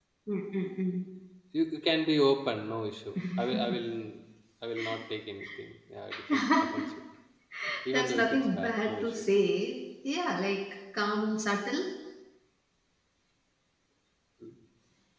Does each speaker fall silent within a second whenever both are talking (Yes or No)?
No